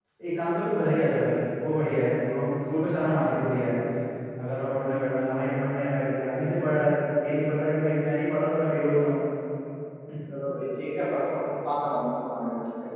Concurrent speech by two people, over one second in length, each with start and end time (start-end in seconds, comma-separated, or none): none